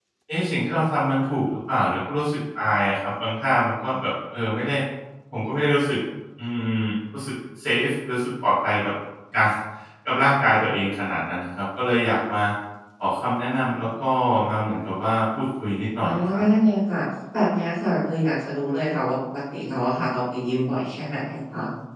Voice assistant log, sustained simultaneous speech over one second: none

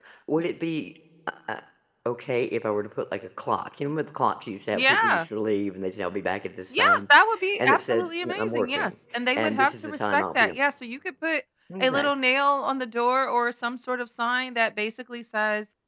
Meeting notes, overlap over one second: present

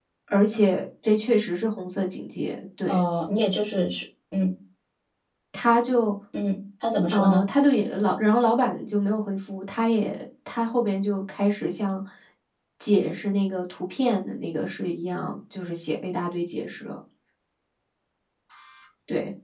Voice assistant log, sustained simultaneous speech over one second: none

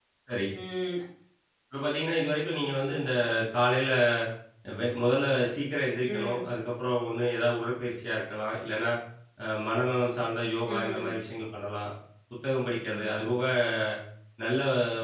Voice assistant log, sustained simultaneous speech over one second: none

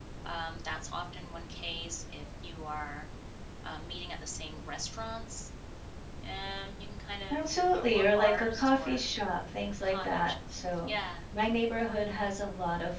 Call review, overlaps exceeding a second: present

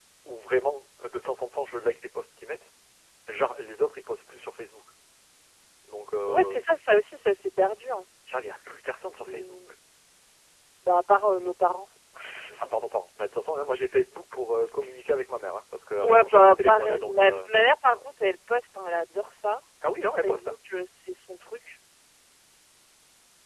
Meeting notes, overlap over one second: present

